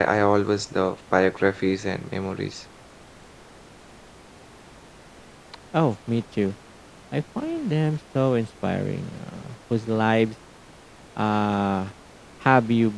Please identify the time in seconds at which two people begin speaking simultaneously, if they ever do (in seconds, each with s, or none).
none